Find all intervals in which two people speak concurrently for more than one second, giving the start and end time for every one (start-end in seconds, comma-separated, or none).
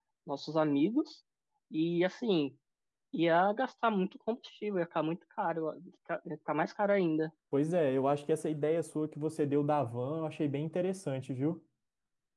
none